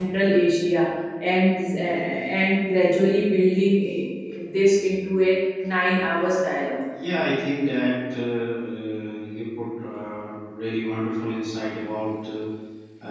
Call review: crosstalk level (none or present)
none